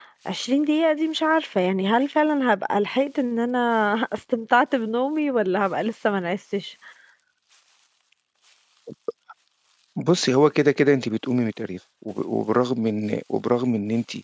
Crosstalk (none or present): none